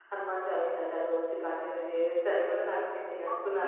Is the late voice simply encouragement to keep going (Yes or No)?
No